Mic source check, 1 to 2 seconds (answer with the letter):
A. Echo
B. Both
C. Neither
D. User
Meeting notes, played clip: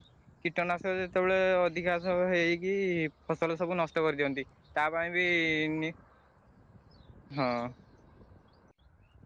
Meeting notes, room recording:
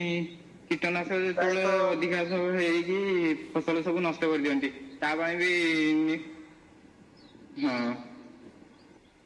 B